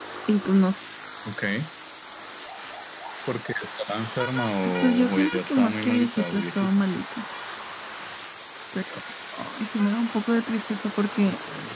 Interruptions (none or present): present